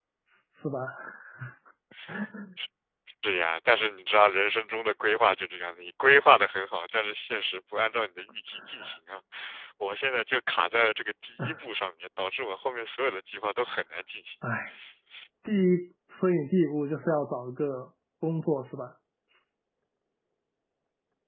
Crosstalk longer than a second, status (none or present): none